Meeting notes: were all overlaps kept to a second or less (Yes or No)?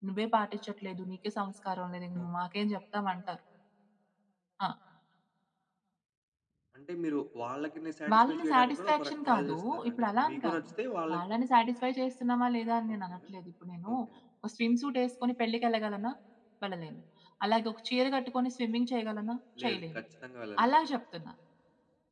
No